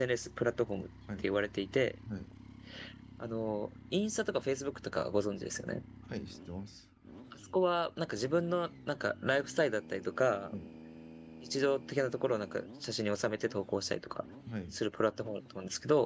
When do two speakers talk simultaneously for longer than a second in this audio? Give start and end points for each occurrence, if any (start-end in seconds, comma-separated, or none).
none